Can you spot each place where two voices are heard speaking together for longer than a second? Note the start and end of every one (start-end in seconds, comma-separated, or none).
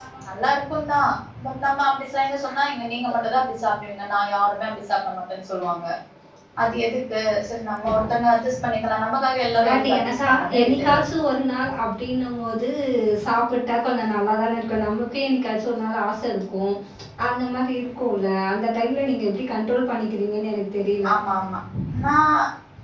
9.6-11.0